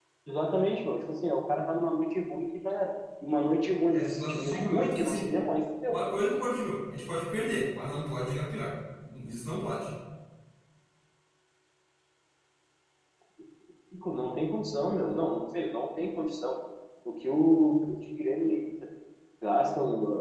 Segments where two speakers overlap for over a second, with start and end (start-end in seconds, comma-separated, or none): 3.9-5.2